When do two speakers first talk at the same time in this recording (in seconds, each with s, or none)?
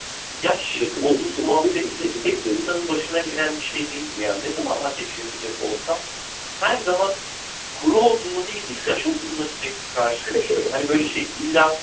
0.8 s